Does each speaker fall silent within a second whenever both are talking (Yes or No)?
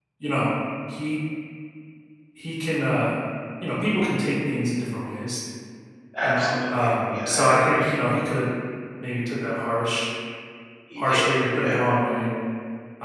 No